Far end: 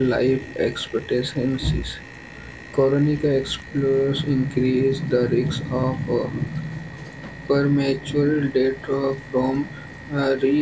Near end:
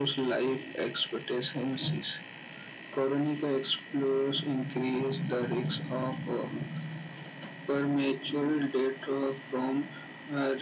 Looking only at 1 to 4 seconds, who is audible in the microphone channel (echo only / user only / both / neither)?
echo only